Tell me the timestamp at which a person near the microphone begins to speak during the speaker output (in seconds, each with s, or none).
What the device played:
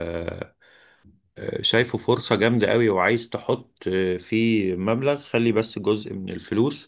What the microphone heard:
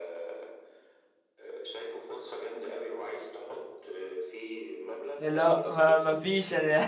5.2 s